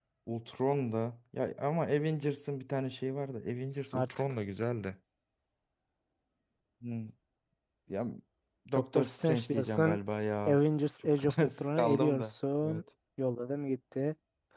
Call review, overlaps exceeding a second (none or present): present